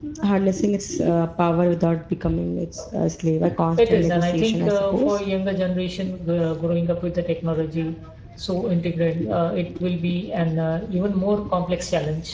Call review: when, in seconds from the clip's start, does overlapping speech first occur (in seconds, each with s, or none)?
3.8 s